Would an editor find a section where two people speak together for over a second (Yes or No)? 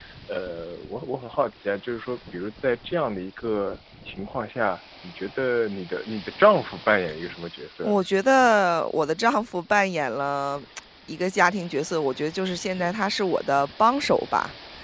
No